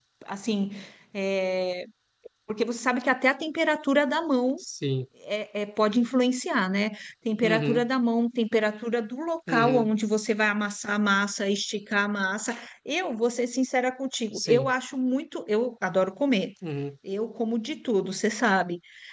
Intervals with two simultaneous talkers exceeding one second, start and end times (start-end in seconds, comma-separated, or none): none